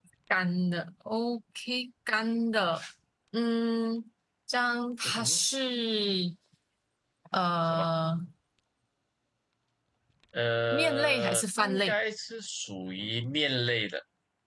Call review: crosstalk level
present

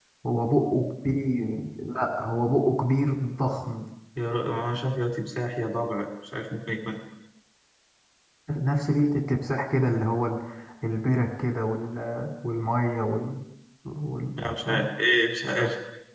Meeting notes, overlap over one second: none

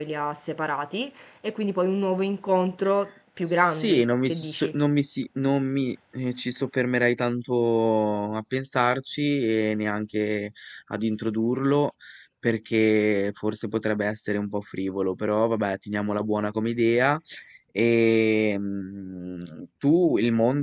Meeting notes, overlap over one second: present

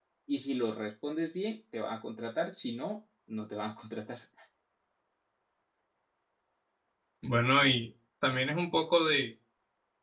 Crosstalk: none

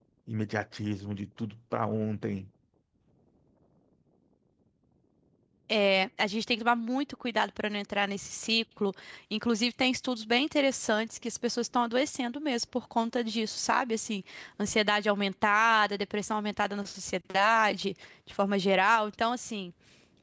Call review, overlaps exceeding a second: none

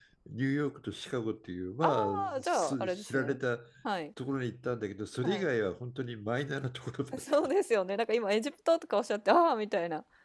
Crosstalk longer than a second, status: present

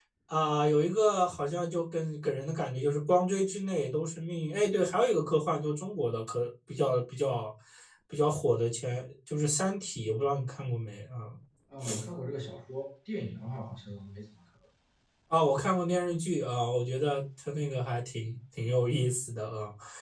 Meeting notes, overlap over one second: none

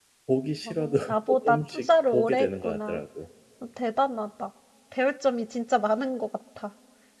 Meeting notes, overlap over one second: present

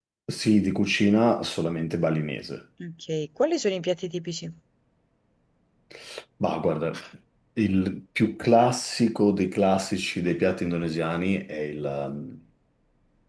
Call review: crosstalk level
none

